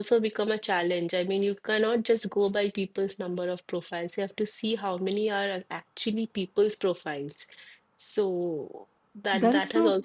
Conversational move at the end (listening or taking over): taking over